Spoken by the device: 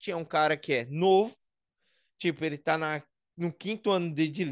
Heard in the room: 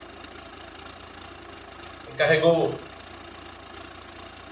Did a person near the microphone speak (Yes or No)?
Yes